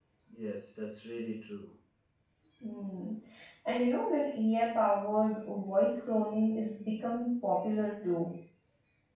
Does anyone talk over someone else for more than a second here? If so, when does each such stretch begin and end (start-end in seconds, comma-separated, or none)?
none